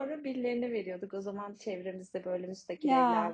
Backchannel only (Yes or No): Yes